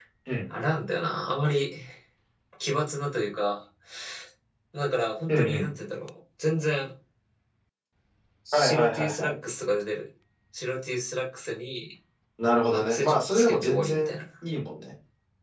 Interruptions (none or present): present